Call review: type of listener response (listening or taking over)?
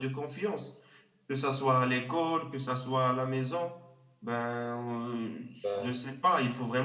listening